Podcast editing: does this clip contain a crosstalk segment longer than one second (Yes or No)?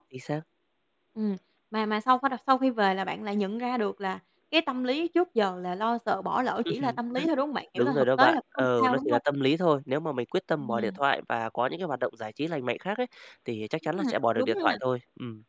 Yes